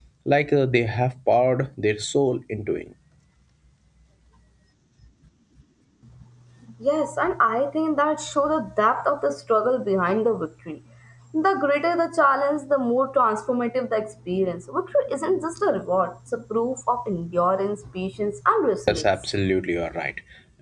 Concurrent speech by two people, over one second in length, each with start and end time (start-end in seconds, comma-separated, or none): none